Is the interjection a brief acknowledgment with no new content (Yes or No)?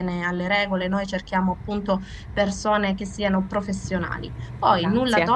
Yes